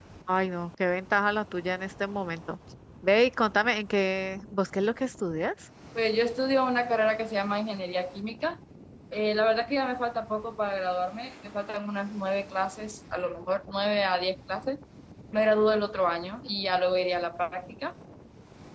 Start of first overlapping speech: none

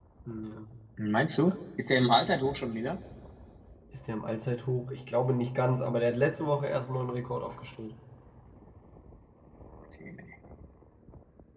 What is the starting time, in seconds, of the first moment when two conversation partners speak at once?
none

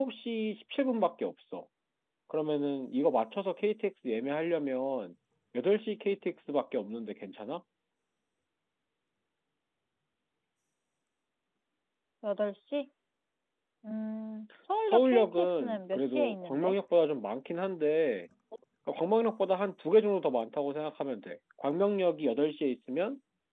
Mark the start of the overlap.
14.9 s

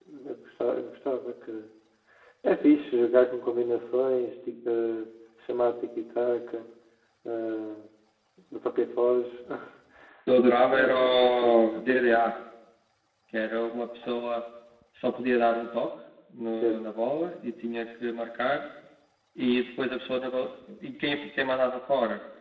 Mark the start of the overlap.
10.7 s

